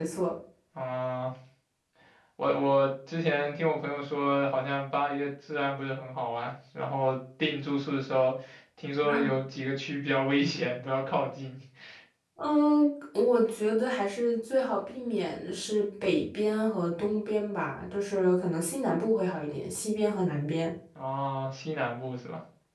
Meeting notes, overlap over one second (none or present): none